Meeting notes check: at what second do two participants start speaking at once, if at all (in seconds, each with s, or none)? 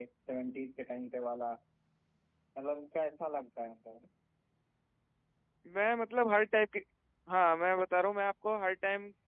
none